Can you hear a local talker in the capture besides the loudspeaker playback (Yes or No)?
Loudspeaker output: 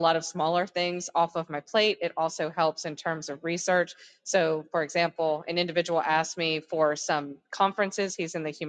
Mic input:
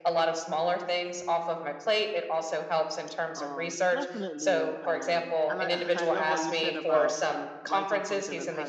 Yes